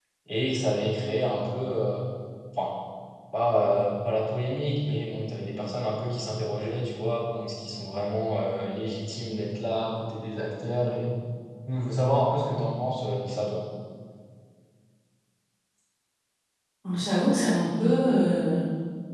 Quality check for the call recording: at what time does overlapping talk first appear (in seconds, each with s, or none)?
none